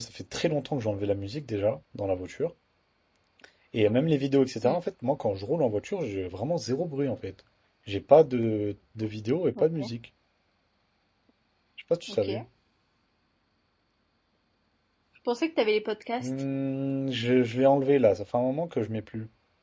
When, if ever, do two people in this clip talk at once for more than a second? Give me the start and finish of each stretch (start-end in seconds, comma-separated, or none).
none